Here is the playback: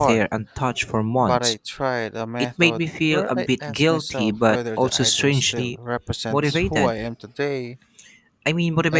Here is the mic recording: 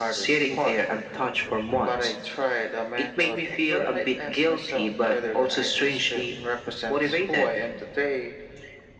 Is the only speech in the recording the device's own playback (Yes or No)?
Yes